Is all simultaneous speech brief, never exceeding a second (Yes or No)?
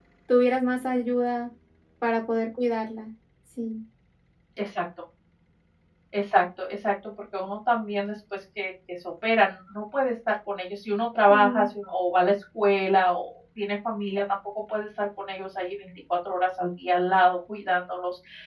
Yes